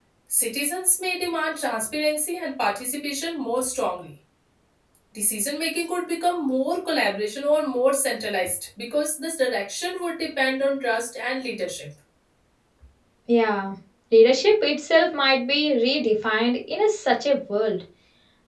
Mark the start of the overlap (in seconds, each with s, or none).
none